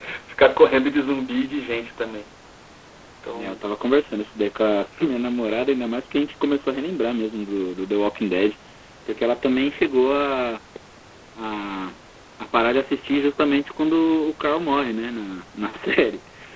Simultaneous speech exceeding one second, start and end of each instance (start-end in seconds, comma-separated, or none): none